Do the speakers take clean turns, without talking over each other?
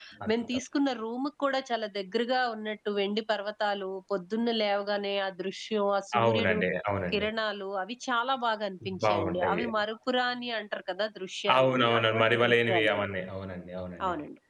No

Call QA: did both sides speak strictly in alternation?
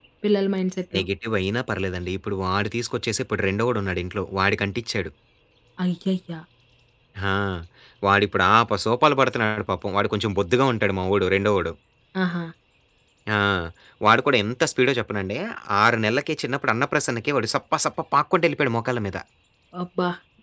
Yes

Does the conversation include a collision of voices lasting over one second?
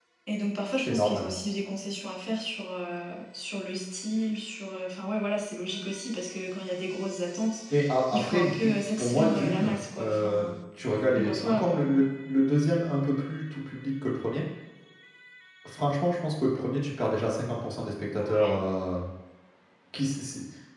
Yes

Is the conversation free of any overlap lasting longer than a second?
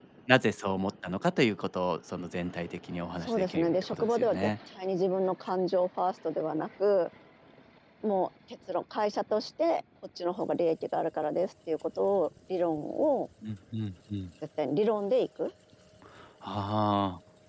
No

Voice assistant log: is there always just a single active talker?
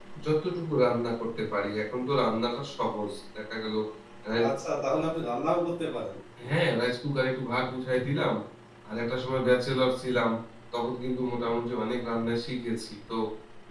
Yes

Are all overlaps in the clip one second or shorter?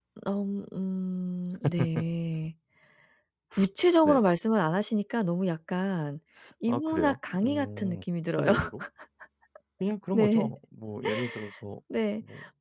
No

